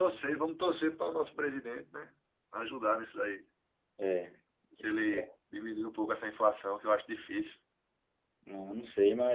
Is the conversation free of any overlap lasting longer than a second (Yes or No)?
Yes